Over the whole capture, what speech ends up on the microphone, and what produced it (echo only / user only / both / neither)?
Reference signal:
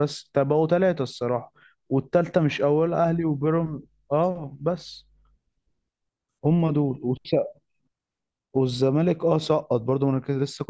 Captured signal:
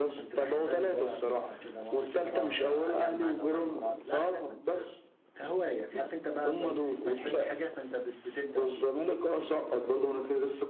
both